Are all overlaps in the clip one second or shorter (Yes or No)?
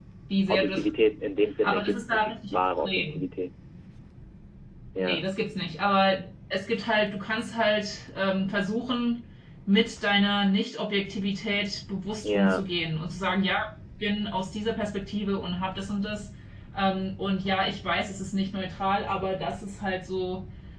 No